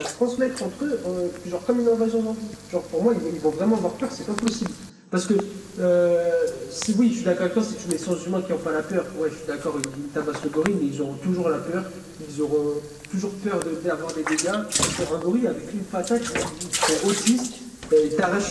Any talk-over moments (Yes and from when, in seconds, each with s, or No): No